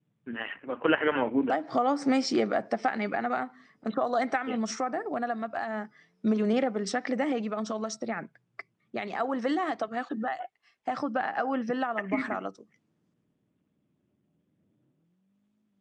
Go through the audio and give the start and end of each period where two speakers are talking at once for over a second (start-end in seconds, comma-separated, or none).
none